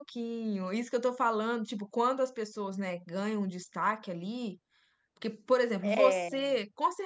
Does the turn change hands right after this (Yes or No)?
No